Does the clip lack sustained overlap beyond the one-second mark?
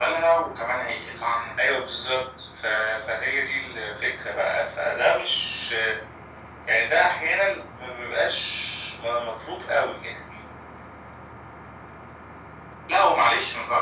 Yes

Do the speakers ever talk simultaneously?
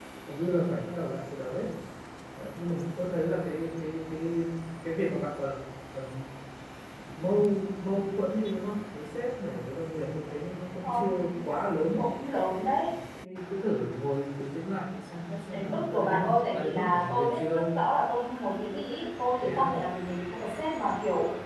Yes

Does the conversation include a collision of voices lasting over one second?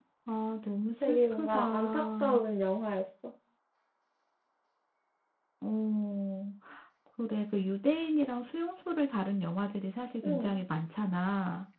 Yes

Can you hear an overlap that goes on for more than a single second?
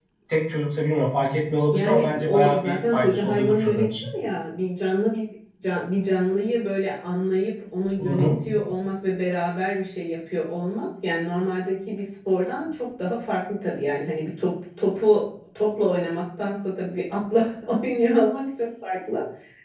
Yes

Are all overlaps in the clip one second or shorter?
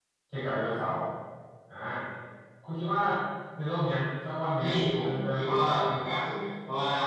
No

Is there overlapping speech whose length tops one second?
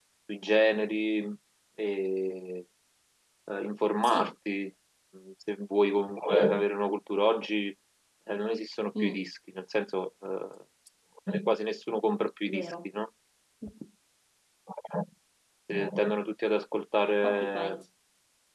No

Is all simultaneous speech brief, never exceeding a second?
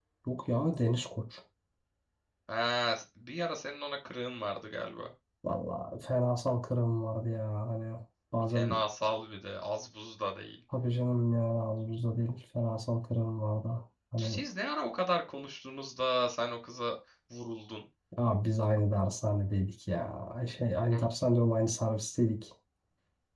Yes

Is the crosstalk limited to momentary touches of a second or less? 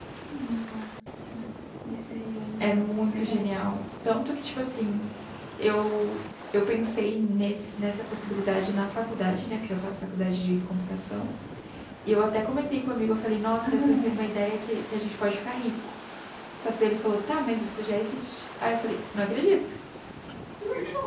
No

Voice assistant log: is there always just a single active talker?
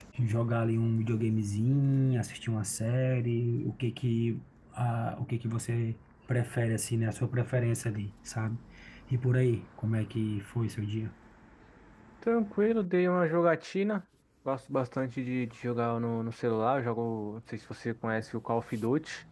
Yes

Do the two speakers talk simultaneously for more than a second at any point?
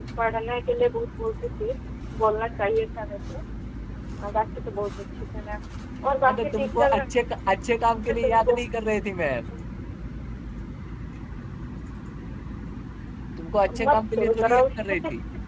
Yes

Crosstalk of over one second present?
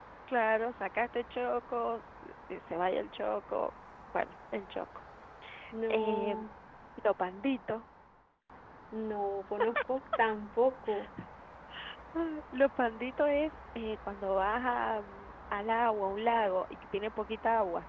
No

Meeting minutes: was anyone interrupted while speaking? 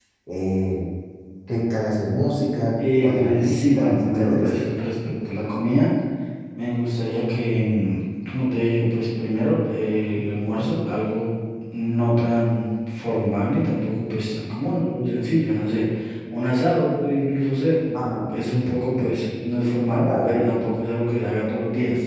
Yes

